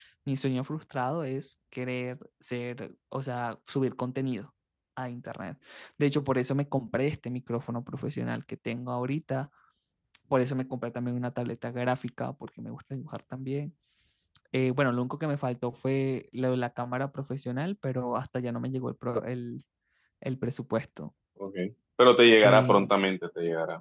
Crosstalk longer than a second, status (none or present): none